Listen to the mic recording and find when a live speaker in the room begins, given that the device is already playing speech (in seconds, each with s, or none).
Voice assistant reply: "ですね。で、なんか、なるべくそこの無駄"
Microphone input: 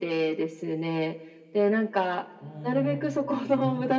2.4 s